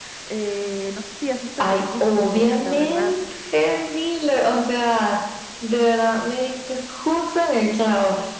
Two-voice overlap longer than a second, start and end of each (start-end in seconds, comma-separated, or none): 1.6-3.1